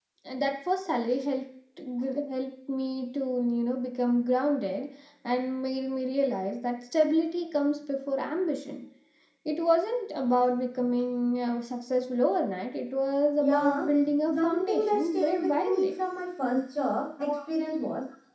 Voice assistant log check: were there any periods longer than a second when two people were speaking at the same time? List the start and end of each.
14.3-15.9

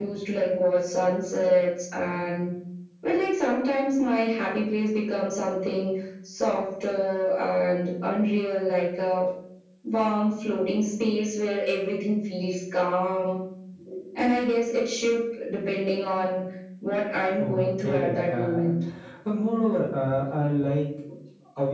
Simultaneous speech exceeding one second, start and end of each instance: 17.4-18.6

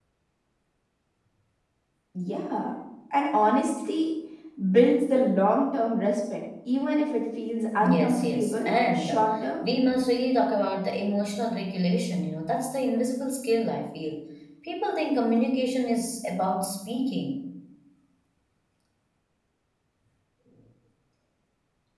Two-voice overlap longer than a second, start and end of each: 7.8-9.2

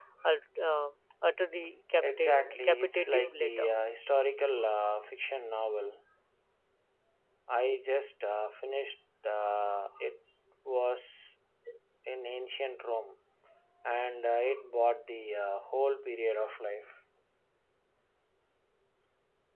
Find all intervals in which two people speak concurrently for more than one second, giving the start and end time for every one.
2.0-3.6

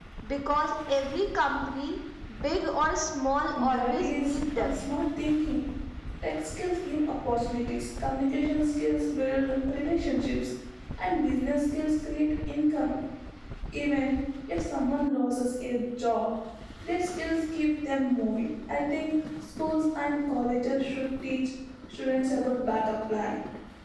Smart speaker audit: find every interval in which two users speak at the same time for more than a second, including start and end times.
3.6-4.9

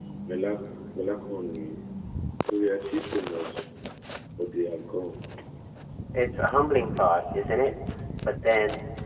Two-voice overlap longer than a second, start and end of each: none

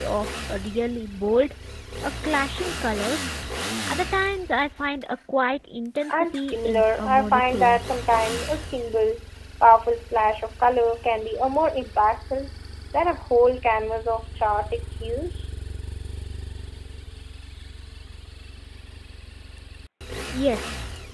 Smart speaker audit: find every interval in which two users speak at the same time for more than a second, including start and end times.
6.1-7.8

